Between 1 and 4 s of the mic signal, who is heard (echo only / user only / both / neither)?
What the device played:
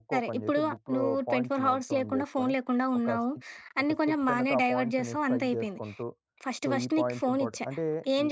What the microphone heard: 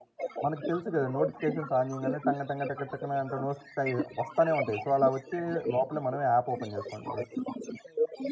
both